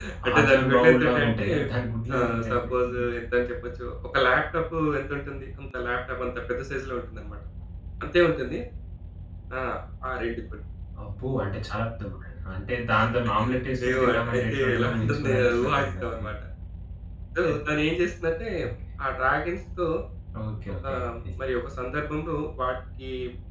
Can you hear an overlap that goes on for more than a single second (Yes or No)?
Yes